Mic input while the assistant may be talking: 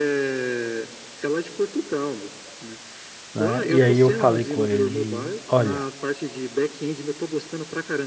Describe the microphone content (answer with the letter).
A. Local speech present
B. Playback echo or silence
A